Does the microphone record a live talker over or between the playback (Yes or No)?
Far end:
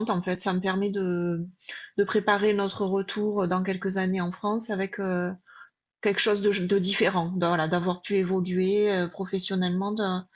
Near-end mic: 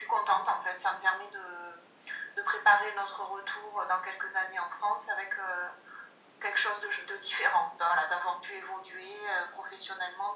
No